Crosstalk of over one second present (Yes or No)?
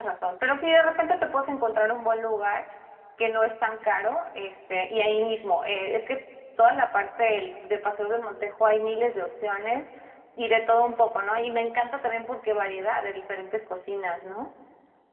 No